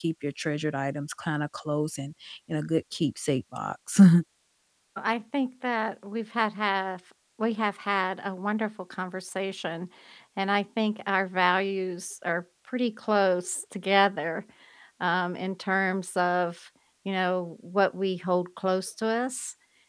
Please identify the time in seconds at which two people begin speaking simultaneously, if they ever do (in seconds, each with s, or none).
none